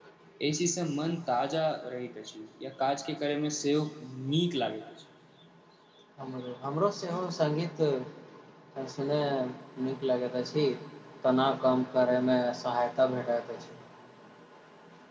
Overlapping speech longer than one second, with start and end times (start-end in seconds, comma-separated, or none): none